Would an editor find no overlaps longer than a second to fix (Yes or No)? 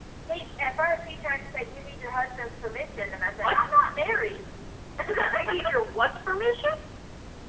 Yes